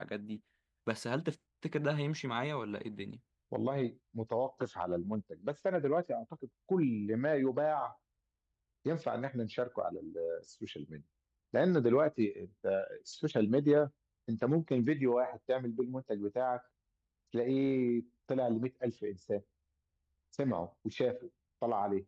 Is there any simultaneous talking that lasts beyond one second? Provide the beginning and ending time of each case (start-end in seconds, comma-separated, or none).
none